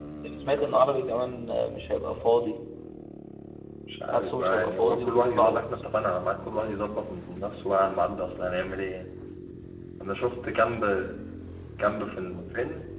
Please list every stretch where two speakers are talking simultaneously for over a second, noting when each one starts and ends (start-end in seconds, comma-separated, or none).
4.1-5.6